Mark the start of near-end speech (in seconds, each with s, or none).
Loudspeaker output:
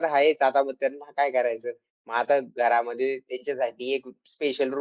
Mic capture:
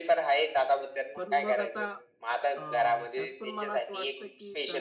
1.1 s